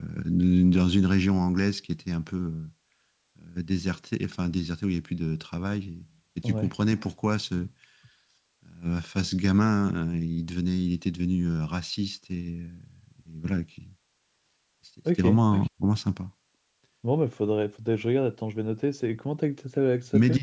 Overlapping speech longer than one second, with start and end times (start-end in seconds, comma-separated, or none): none